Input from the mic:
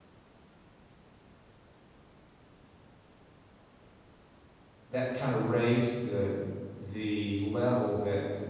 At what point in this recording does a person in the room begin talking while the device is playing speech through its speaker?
5 s

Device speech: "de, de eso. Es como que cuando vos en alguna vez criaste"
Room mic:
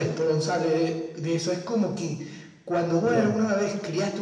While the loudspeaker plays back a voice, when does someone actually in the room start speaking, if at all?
3 s

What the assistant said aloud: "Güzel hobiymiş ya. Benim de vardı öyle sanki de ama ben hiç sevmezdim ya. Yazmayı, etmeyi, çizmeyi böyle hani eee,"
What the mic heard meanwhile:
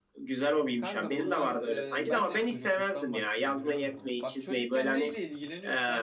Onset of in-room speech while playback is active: 1 s

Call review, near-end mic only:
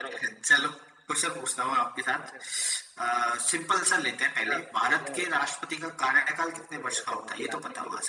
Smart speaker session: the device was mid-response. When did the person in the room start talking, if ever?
none

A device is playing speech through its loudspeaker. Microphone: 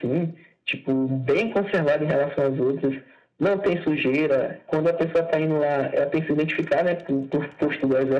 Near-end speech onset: none

